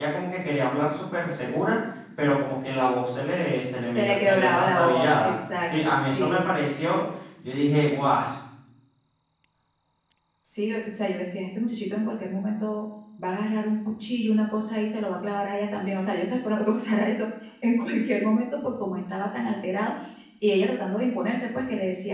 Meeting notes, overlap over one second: present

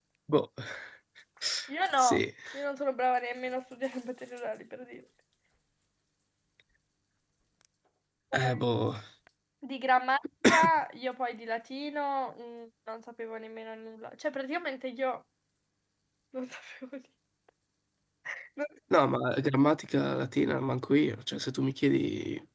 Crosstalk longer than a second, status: none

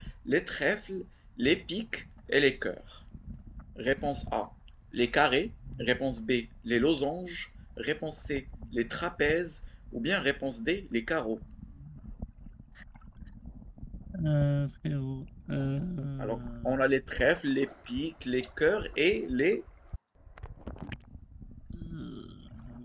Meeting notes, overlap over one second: none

